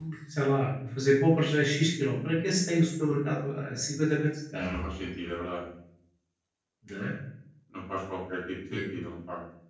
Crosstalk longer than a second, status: none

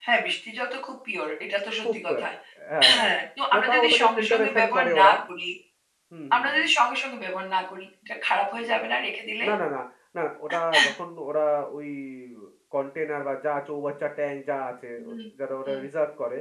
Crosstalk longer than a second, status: present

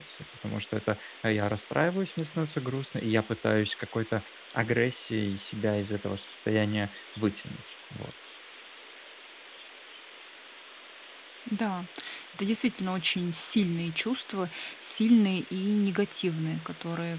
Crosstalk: none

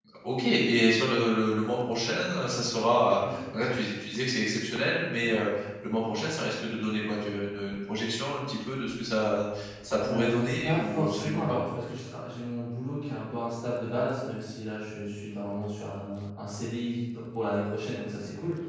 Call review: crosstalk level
present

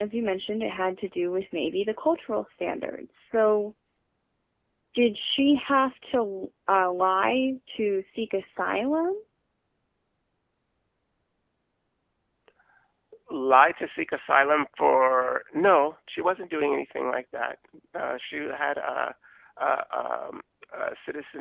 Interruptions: none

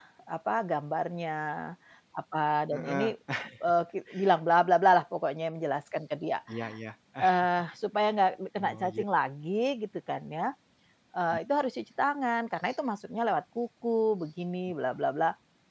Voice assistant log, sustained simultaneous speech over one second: none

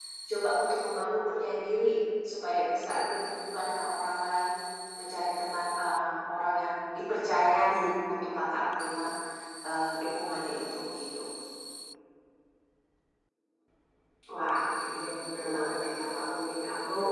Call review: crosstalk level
none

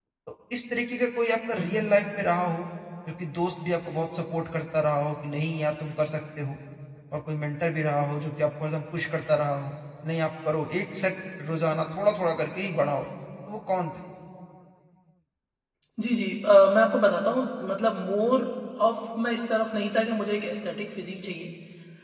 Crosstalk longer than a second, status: none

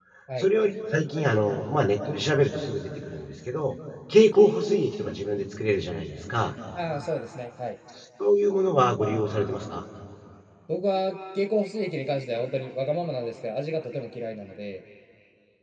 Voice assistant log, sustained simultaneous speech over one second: none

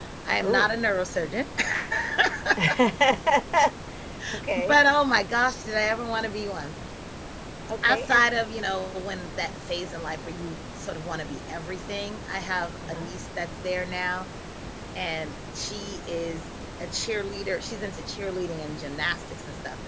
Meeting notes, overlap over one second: none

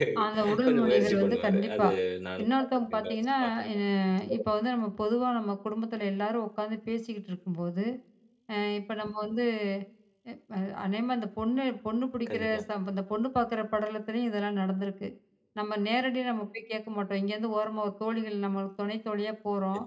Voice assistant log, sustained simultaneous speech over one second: present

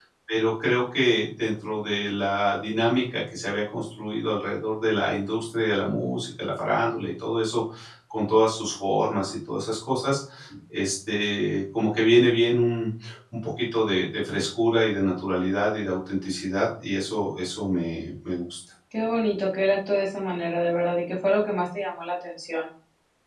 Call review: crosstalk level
none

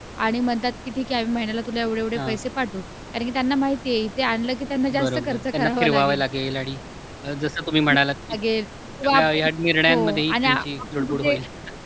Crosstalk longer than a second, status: present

